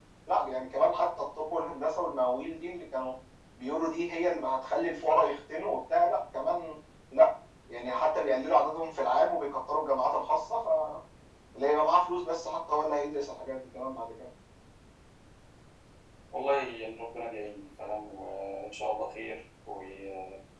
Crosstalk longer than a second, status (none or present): none